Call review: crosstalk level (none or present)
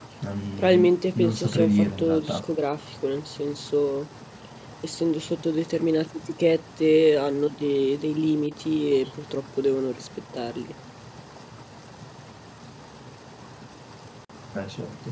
present